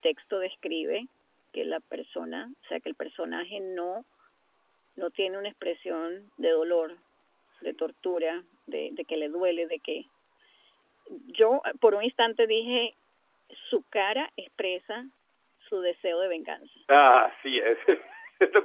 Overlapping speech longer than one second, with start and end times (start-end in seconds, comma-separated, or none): none